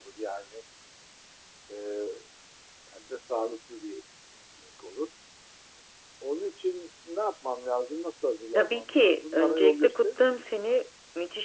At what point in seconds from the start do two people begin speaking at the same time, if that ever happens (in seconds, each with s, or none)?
8.6 s